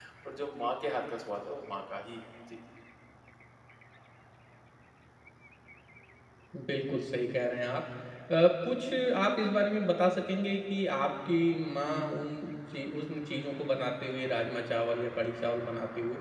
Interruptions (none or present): none